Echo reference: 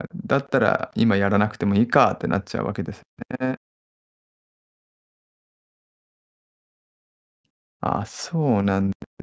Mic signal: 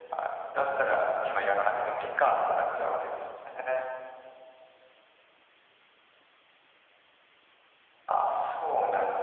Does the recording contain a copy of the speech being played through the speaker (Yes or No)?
Yes